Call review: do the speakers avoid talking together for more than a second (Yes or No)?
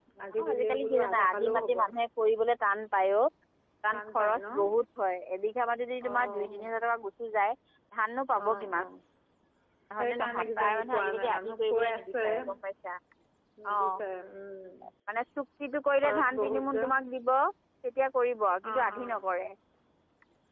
No